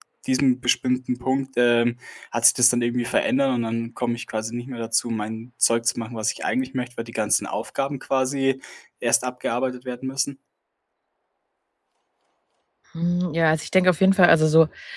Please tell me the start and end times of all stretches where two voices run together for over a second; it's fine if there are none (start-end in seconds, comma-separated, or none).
none